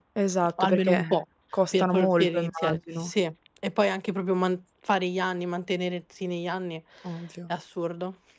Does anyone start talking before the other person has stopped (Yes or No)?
Yes